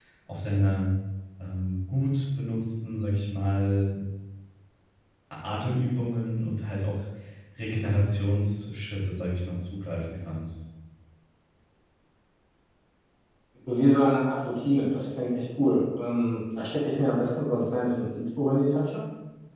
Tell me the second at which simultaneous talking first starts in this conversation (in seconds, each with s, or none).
none